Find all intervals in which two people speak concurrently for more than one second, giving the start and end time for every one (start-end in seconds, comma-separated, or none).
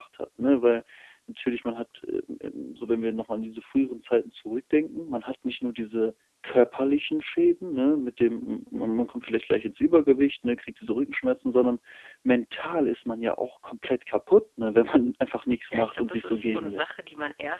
15.7-17.0